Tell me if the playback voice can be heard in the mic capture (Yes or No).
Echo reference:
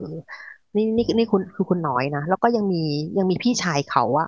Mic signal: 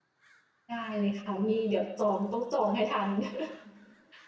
No